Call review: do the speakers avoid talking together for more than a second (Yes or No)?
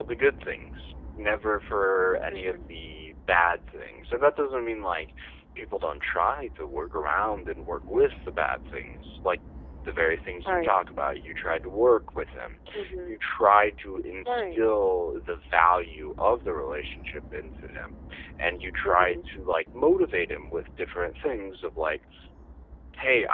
Yes